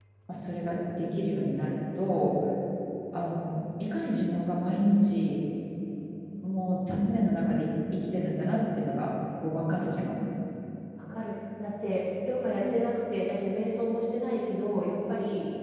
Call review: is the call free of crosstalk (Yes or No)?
Yes